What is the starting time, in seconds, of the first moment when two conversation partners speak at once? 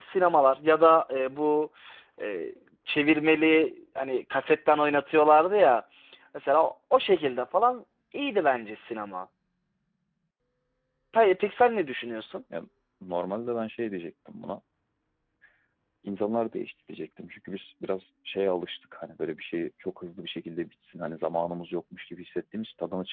none

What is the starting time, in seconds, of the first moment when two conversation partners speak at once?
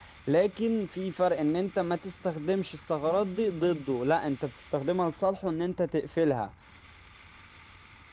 none

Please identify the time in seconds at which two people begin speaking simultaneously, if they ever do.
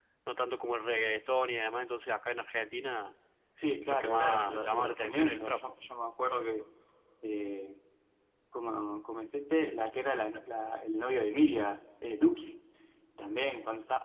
3.9 s

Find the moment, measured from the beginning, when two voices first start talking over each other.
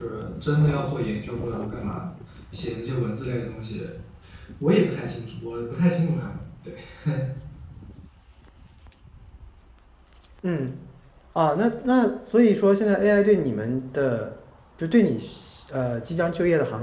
none

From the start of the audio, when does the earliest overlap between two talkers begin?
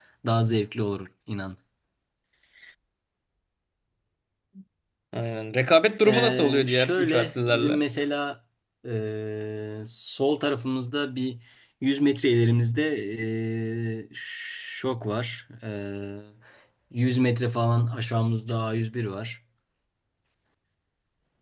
6.0 s

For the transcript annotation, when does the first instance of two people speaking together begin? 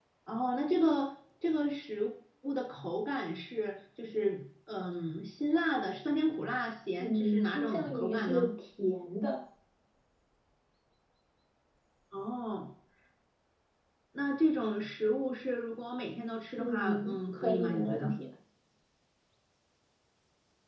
7.0 s

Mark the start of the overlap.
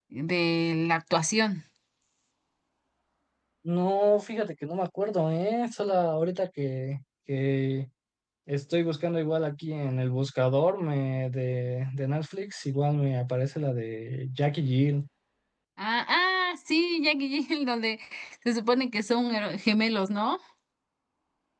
none

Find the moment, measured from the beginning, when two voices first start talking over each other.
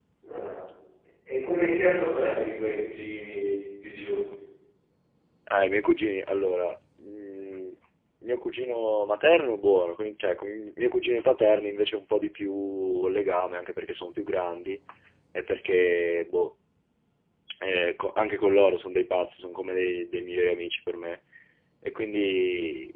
none

